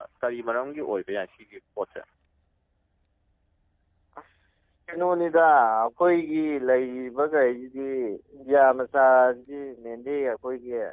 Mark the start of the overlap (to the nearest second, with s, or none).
none